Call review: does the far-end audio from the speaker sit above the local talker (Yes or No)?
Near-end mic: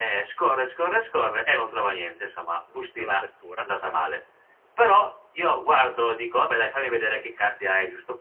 Yes